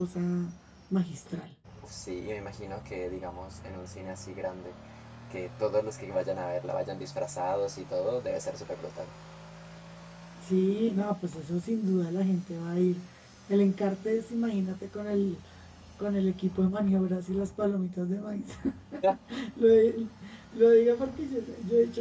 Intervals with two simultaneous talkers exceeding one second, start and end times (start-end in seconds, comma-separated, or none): none